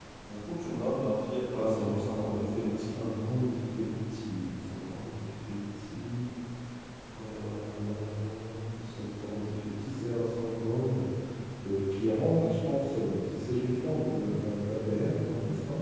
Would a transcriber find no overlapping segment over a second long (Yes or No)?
No